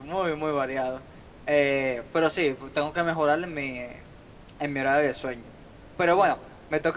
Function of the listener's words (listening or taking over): listening